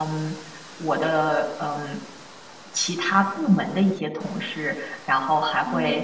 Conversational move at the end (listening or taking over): listening